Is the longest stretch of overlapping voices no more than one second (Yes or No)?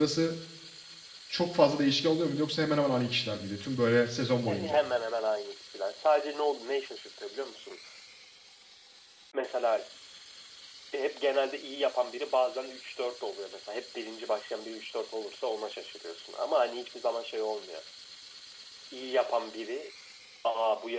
Yes